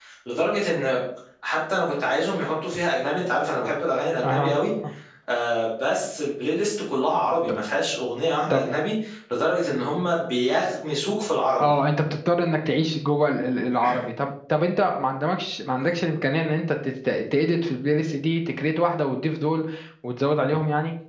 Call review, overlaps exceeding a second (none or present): none